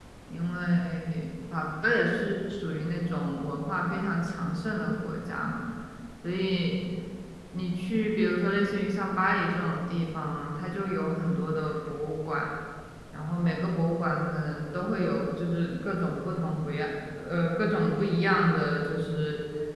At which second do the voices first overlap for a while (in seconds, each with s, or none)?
none